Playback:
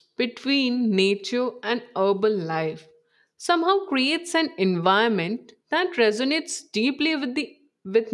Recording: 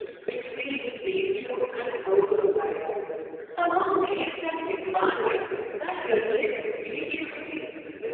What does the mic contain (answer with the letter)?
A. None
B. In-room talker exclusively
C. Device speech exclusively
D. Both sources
C